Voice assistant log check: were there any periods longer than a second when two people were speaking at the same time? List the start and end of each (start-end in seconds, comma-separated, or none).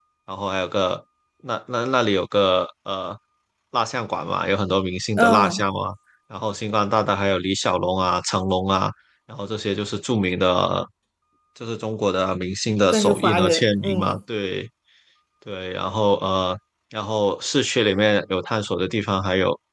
12.9-14.2